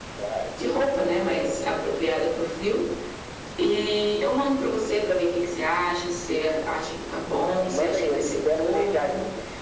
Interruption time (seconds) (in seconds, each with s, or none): 7.6 s